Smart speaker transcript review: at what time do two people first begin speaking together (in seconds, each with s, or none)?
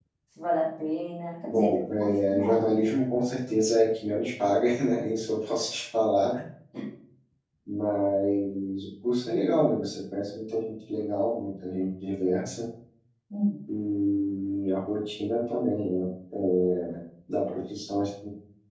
1.5 s